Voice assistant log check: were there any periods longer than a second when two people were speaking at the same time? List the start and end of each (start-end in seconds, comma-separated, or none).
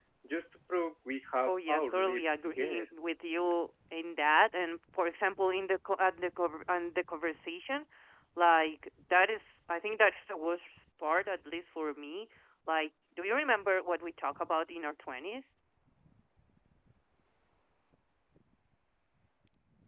1.5-2.8